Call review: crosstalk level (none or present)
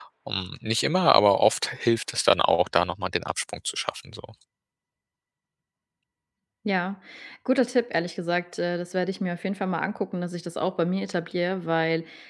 none